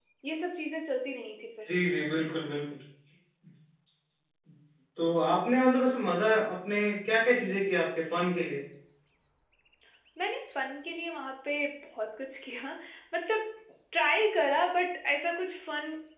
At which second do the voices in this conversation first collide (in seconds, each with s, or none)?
none